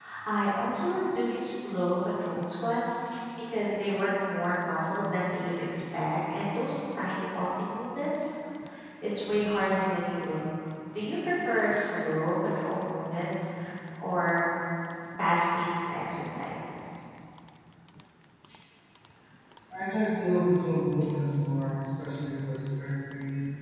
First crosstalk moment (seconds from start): none

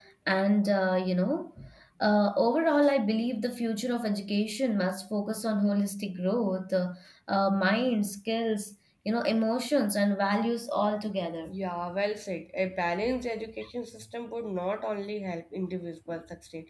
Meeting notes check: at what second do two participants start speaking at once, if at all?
none

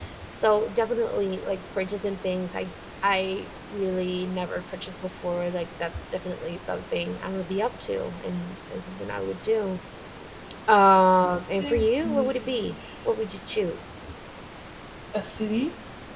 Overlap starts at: 12 s

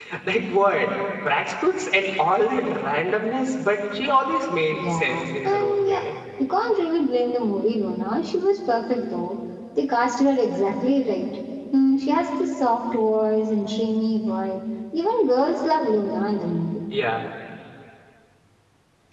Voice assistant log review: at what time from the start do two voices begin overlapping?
5 s

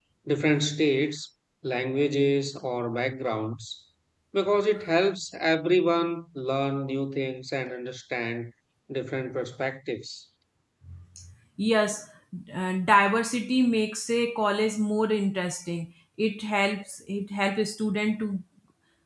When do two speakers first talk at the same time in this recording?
none

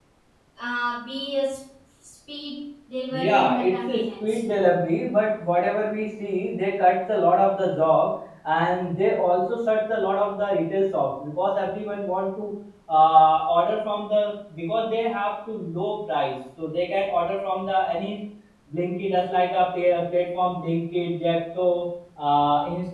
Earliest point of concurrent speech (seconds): 3 s

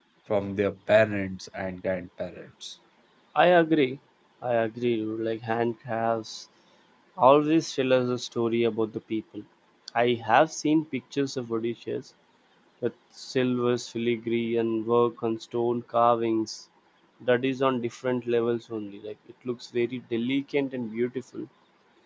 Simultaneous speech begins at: none

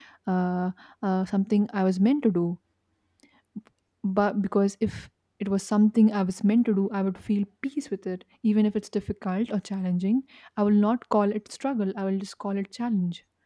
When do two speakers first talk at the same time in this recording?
none

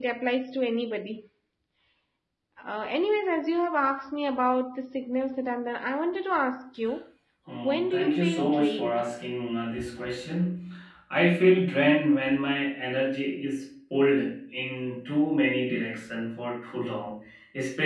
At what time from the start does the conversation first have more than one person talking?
8 s

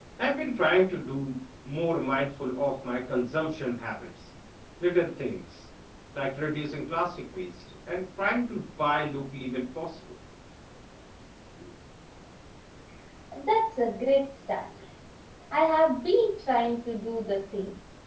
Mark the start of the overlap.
none

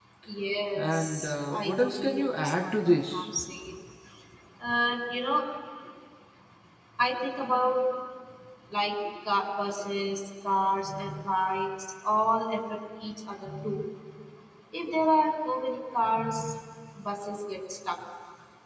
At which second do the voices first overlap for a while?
1 s

